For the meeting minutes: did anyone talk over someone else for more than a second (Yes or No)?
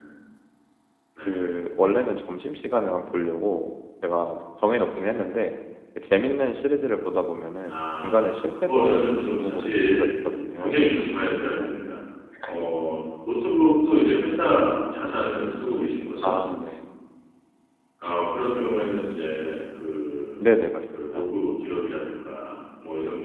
Yes